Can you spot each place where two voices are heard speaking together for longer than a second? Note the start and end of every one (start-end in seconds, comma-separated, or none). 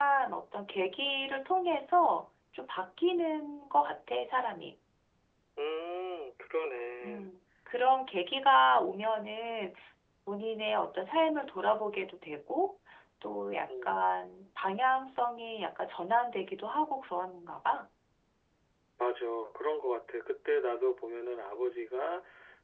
none